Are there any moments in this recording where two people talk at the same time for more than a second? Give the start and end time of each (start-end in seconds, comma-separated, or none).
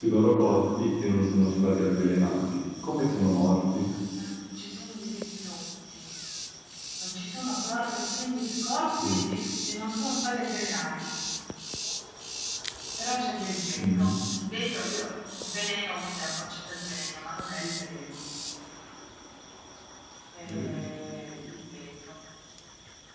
none